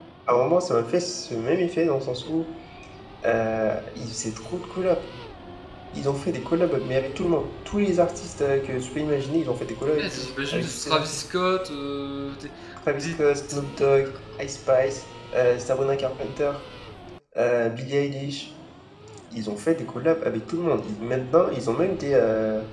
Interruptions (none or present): present